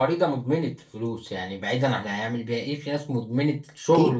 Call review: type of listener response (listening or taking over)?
taking over